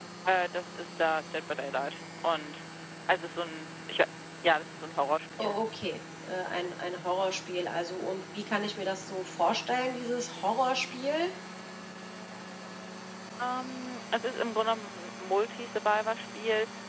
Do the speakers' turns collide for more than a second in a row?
No

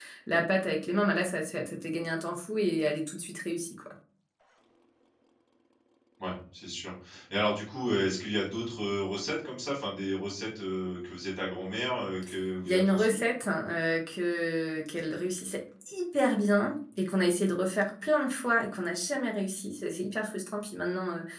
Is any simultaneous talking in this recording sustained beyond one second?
No

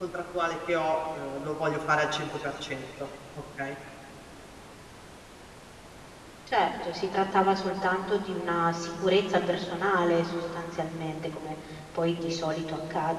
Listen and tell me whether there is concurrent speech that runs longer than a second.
No

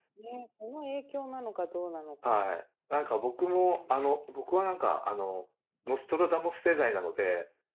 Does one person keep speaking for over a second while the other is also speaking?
No

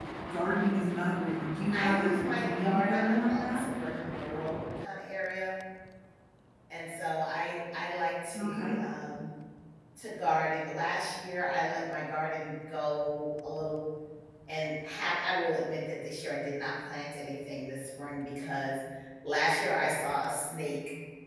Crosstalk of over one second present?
Yes, from 1.7 s

